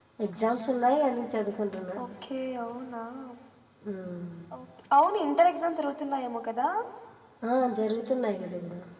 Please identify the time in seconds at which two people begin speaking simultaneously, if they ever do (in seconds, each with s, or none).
none